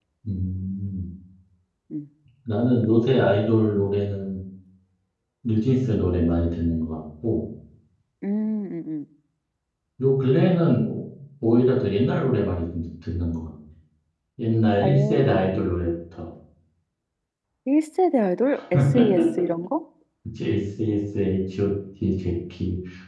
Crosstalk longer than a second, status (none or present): none